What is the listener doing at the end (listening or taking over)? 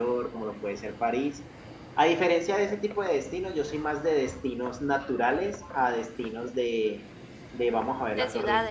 listening